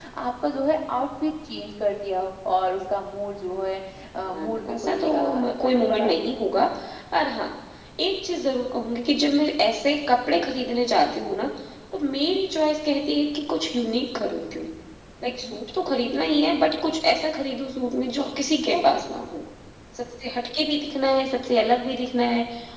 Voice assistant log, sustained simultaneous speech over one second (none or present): present